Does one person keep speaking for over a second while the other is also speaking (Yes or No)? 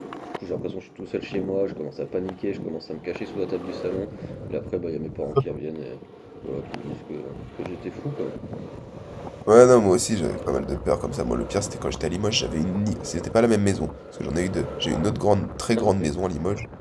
No